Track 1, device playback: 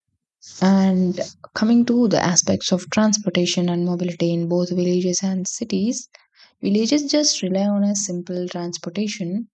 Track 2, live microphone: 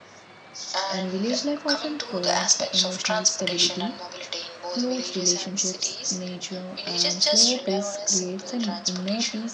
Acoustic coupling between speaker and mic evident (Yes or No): Yes